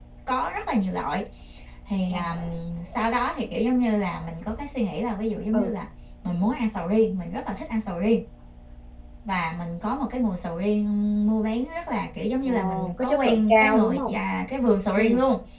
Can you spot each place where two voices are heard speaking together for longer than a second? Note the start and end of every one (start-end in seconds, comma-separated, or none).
12.4-14.1